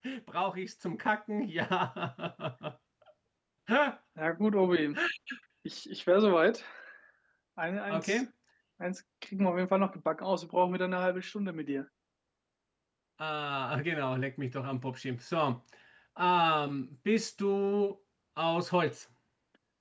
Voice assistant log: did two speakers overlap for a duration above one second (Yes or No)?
No